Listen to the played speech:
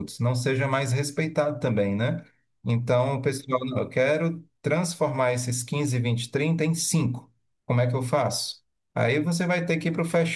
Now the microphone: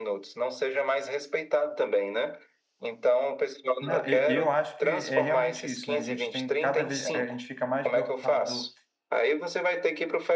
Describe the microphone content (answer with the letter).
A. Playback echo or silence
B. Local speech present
B